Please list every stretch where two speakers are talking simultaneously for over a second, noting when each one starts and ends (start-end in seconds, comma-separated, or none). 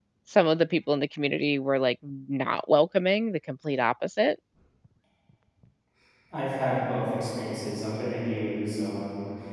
none